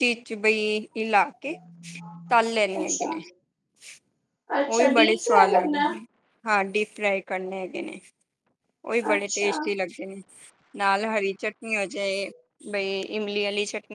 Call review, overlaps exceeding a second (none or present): present